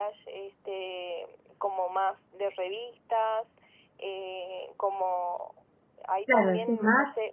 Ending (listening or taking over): taking over